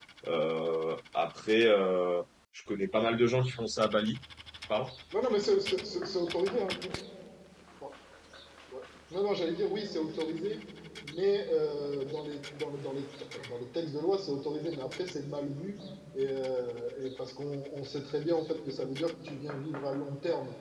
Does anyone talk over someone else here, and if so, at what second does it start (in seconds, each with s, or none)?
none